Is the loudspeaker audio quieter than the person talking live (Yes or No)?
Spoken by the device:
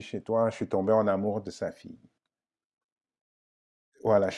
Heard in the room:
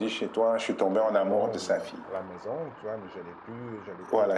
No